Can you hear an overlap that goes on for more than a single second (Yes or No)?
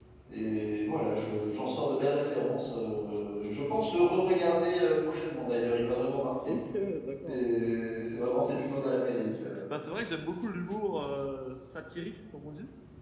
No